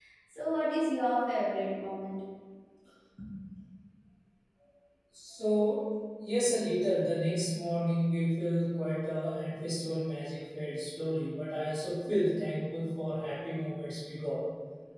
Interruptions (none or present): none